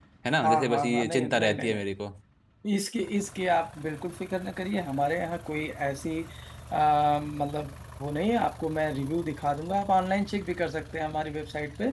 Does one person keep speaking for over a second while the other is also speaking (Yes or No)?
Yes